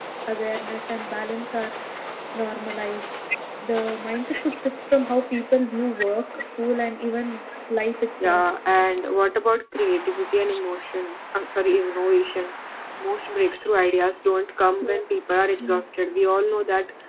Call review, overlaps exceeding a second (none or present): none